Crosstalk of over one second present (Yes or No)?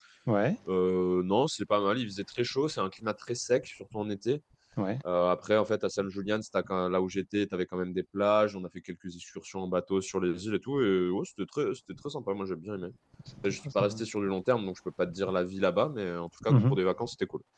No